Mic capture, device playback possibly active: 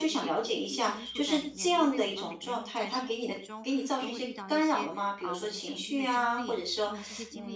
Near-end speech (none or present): present